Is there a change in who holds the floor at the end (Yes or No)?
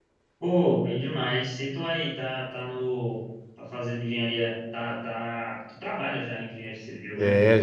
Yes